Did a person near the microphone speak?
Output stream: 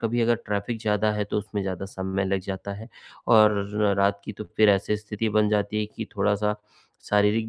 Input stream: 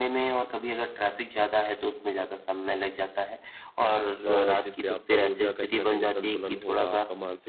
Yes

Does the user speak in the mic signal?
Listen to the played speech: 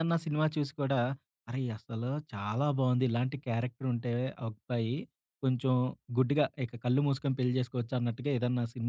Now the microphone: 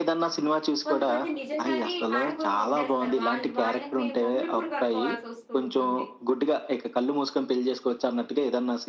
Yes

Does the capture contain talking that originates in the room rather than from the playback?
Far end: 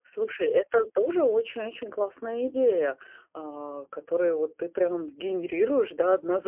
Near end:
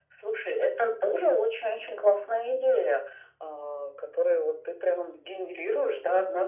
No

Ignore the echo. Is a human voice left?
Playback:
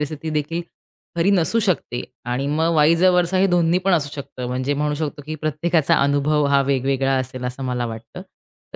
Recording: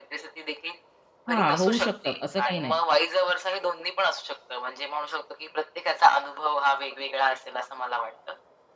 Yes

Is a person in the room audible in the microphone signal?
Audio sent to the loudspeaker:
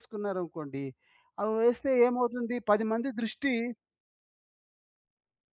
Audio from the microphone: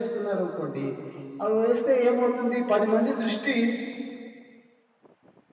No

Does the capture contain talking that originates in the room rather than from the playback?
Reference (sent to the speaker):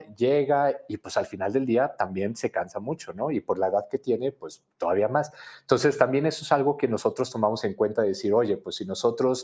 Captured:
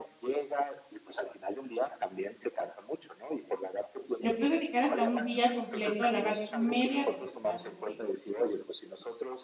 Yes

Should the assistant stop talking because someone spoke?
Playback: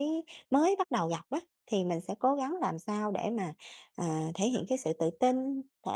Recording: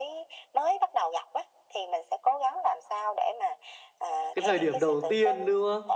Yes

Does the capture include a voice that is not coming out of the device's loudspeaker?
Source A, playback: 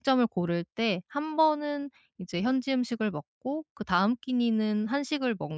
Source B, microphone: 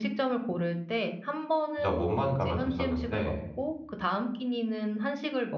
Yes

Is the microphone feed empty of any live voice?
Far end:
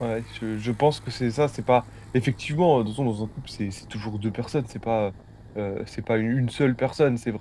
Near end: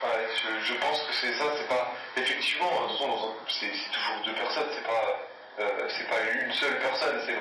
Yes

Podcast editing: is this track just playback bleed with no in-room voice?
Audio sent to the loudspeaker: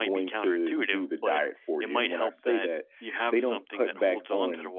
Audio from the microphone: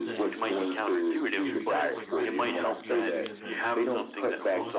No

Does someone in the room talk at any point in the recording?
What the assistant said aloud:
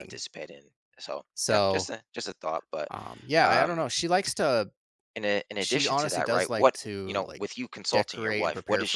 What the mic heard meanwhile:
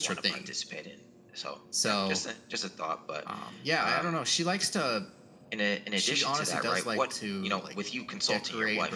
No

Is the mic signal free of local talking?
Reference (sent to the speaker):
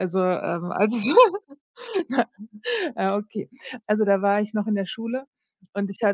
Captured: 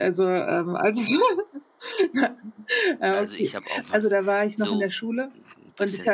No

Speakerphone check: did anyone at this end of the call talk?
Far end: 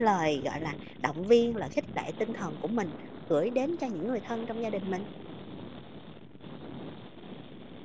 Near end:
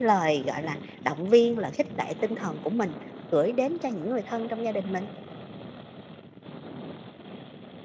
No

